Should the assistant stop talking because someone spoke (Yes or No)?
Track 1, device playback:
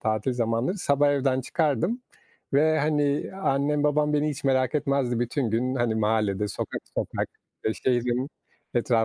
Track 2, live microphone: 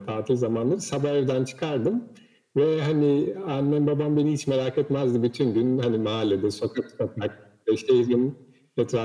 No